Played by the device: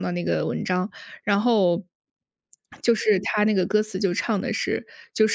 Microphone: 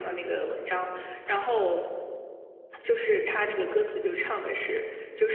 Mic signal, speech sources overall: echo only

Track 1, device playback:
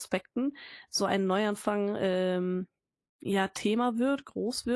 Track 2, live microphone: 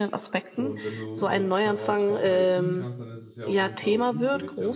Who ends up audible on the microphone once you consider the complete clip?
both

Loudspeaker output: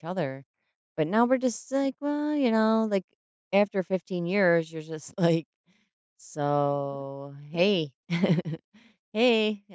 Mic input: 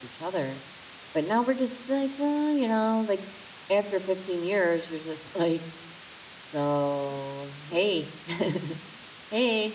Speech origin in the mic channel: echo only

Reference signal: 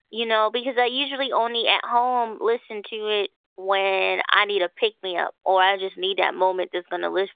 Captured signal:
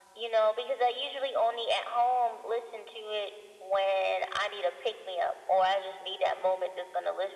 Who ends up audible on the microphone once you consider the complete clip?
echo only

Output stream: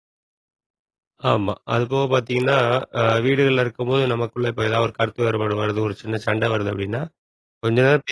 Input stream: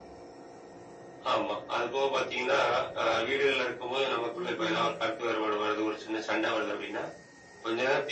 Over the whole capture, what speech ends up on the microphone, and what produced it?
both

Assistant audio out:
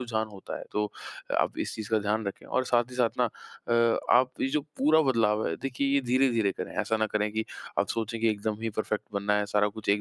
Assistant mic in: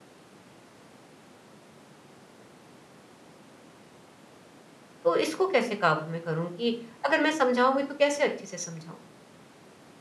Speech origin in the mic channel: user only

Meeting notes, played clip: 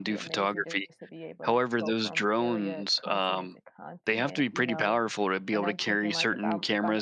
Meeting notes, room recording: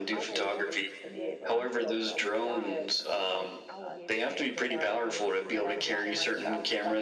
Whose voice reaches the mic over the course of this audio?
both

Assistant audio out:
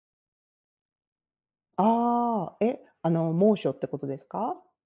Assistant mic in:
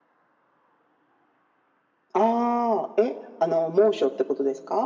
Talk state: echo only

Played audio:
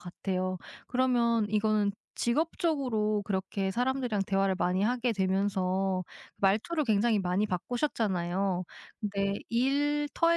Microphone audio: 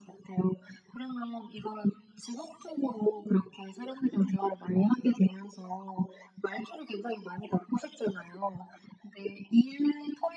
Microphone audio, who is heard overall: echo only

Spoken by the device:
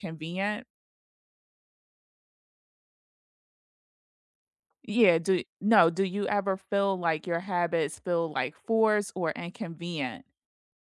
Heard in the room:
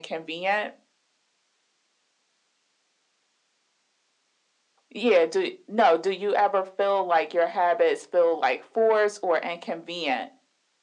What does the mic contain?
echo only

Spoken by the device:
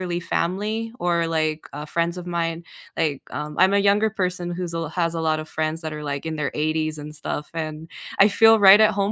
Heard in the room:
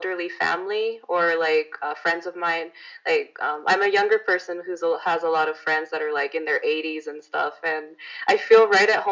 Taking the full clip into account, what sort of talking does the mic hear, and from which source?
echo only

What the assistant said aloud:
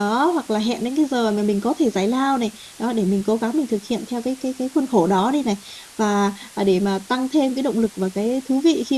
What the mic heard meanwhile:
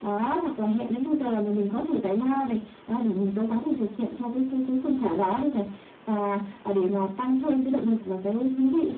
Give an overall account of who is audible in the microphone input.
echo only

